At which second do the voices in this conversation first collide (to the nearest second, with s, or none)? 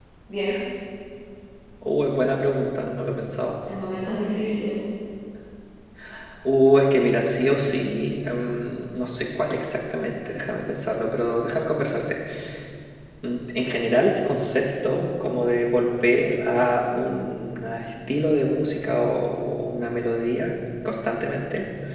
none